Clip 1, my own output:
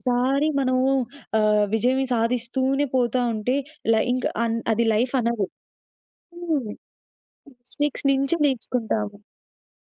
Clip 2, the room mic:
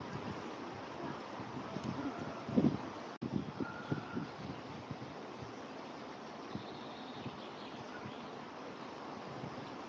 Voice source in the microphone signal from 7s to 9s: neither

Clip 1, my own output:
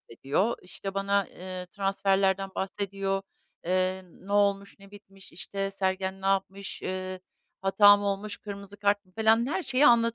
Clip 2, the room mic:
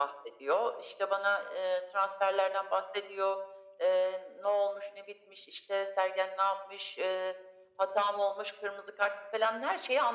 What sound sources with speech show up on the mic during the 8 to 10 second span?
echo only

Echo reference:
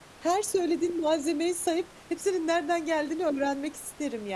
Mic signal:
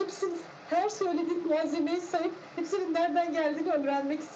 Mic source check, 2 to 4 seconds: echo only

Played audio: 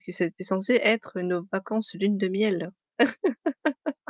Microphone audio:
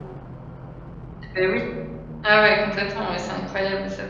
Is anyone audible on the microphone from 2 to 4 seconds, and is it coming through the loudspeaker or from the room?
user only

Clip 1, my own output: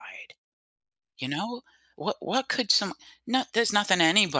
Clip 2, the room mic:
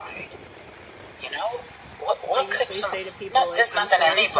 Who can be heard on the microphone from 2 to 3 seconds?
both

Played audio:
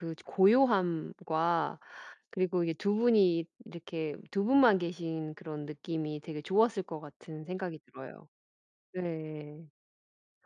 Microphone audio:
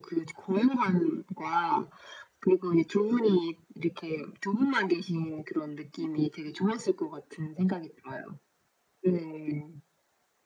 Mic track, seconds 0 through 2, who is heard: echo only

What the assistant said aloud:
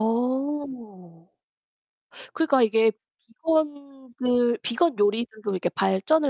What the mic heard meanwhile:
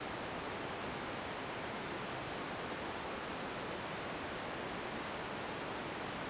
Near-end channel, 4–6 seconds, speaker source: neither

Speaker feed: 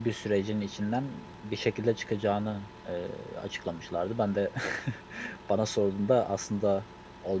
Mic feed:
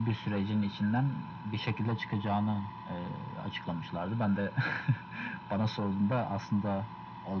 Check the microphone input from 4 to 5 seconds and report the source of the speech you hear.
echo only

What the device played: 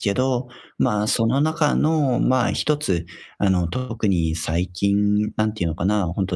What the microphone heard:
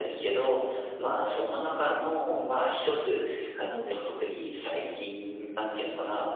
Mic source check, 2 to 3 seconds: echo only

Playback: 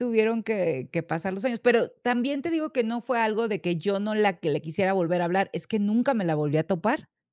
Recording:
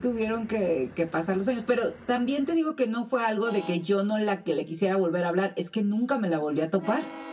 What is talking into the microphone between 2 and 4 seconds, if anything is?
echo only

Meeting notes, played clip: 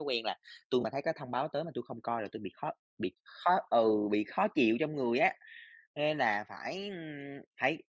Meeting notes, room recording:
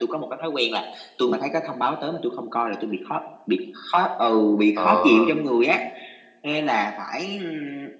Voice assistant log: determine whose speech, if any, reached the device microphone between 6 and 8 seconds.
echo only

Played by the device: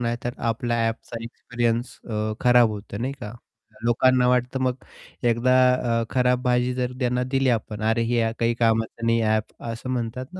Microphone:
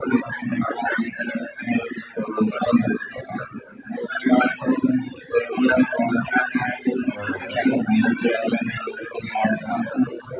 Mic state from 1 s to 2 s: echo only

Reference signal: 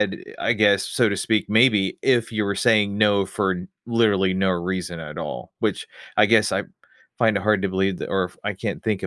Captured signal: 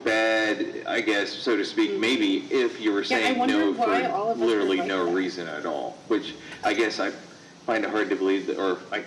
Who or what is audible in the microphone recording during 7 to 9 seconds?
echo only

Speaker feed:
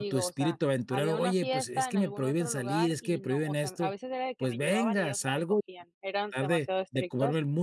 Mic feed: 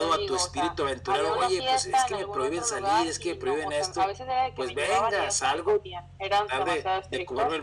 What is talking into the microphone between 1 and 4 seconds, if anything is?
echo only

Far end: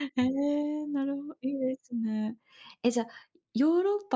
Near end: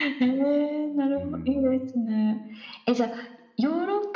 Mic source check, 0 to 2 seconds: both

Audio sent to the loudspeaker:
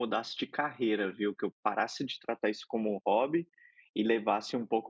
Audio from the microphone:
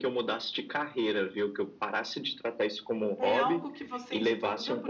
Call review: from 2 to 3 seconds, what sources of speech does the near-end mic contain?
echo only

